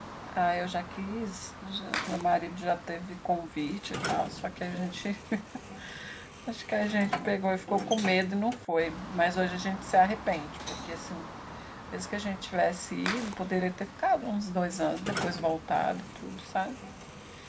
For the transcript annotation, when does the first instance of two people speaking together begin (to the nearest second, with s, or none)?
none